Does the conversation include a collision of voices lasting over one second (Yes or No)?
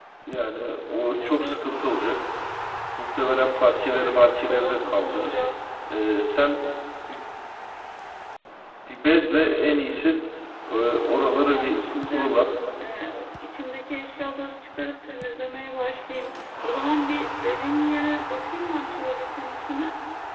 Yes